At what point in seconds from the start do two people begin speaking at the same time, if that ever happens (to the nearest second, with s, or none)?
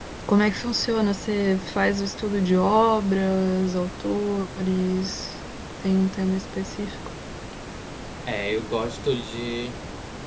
none